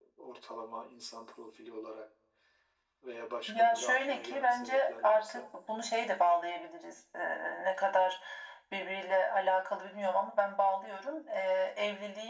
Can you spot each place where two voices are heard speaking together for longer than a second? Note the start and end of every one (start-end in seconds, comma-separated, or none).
3.5-5.5